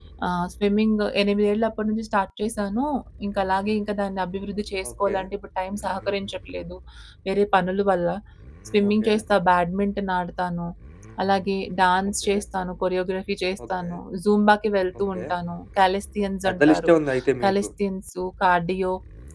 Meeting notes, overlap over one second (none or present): none